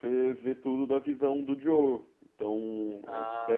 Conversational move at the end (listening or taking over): listening